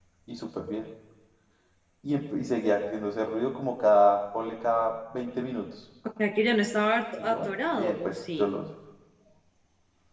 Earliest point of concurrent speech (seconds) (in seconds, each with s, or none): 7.2 s